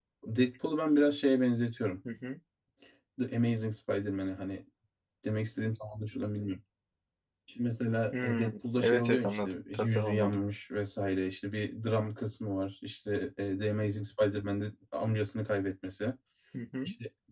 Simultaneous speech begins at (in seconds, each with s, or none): 8.2 s